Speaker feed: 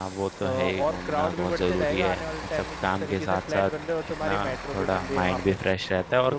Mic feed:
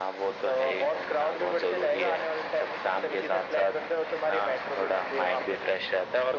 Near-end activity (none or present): none